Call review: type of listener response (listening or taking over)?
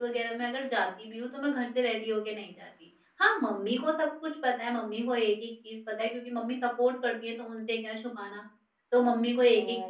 taking over